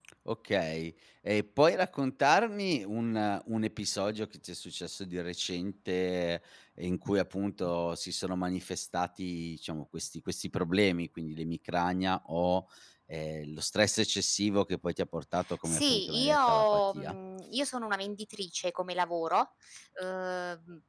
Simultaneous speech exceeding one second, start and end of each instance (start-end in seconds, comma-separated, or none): 15.6-17.2